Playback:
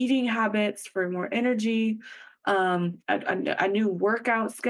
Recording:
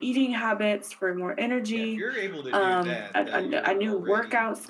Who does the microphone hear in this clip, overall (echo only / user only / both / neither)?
both